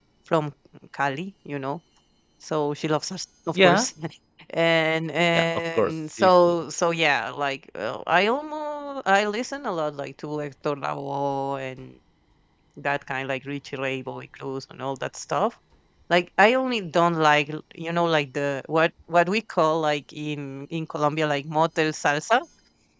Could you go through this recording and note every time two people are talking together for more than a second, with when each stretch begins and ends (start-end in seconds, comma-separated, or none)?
5.3-6.5